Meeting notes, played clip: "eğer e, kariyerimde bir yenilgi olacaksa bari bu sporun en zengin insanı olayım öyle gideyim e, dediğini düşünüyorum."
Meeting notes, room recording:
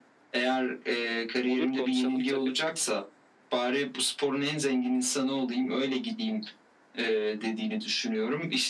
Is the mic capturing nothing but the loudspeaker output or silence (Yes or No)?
No